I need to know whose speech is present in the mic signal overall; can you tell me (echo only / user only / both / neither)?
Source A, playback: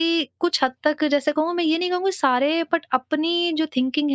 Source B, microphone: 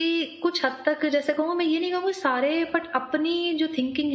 echo only